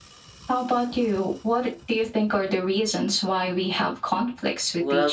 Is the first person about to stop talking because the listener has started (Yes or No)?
Yes